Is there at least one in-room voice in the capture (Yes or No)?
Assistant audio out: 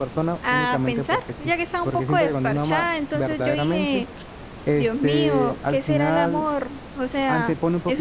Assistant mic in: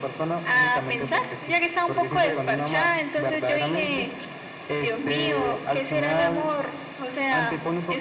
No